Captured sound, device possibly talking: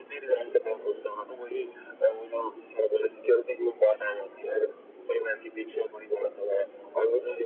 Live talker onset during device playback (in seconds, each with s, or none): none